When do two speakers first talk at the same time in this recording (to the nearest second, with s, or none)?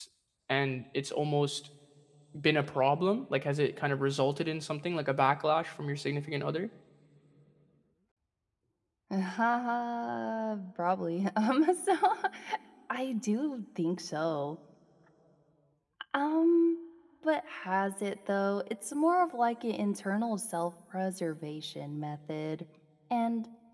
none